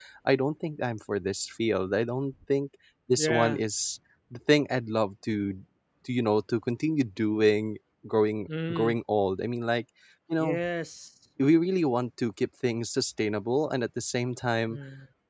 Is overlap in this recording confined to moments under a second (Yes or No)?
Yes